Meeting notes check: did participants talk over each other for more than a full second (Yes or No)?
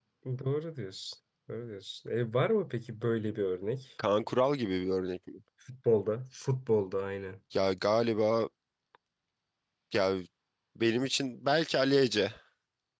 No